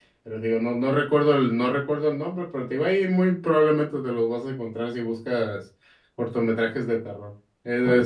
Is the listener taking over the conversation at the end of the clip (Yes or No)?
No